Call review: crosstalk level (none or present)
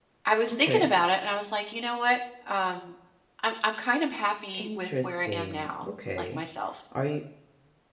present